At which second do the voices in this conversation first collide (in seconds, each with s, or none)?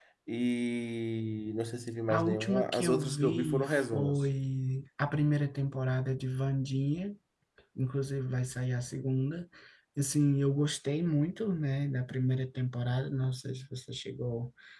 2.1 s